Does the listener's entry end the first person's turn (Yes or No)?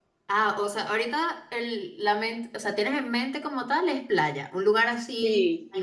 Yes